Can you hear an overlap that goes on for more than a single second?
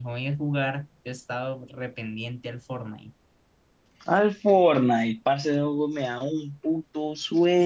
No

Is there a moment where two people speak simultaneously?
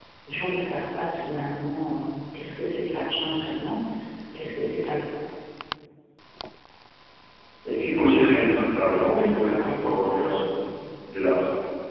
Yes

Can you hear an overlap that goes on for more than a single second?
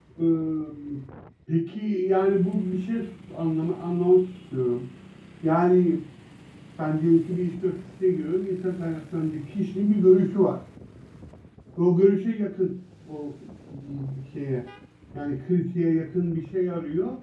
No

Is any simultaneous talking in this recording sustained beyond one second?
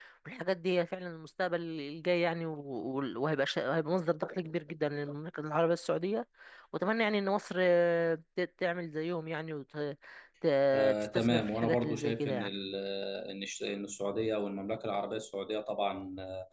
Yes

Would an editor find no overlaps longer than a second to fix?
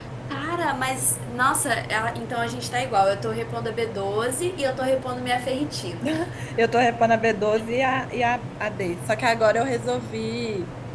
Yes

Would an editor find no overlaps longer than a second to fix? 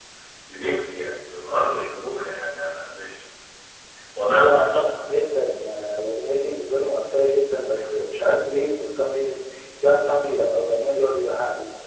Yes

